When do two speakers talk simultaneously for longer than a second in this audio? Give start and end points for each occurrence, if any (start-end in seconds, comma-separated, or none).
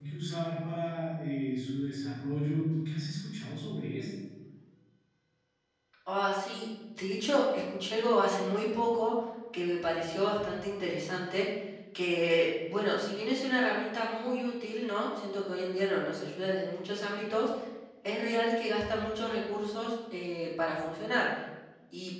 none